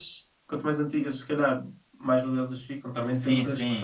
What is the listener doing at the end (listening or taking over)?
taking over